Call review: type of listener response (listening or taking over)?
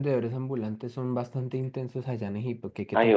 taking over